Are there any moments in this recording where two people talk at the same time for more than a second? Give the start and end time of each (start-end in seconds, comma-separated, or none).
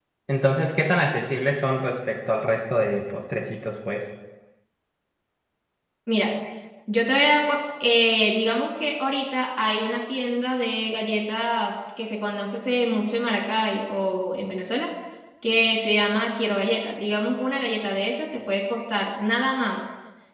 none